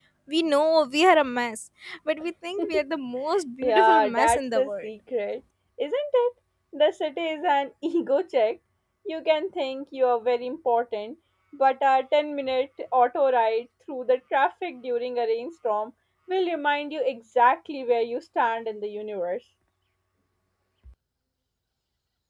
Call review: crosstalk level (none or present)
present